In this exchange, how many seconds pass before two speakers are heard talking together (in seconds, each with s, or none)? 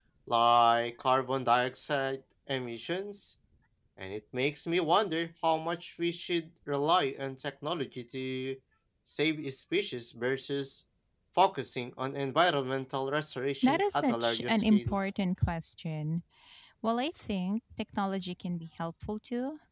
13.6 s